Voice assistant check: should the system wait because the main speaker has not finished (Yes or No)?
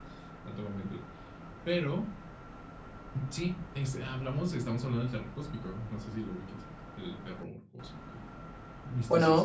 No